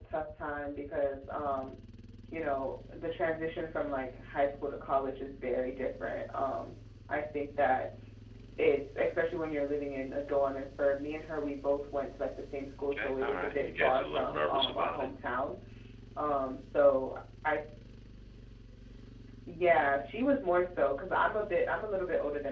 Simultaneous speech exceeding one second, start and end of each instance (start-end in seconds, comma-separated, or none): 13.0-15.1